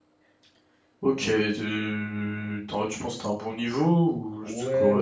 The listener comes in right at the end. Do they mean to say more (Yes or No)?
Yes